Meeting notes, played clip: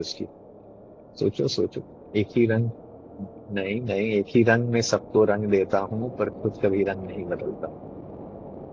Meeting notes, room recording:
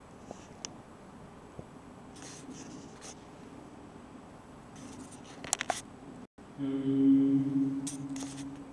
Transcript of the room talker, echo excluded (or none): हम्म,